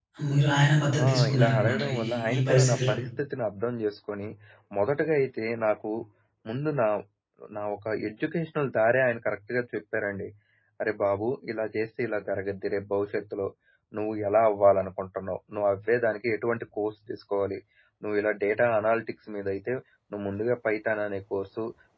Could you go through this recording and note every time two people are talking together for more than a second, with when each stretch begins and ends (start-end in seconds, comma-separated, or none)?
1.0-3.0